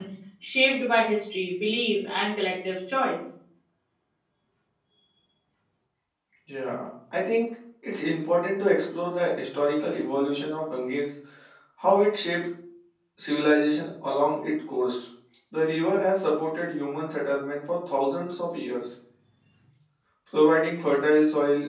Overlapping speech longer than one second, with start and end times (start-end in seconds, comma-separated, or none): none